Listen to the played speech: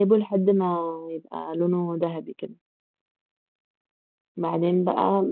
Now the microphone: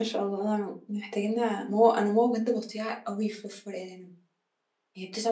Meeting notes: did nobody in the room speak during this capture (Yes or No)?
No